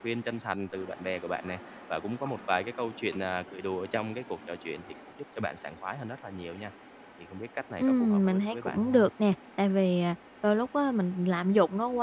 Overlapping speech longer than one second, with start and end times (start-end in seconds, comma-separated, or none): 7.8-9.0